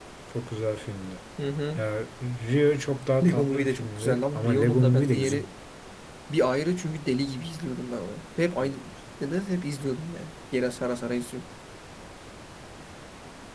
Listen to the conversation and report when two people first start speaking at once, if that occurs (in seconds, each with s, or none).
3.2 s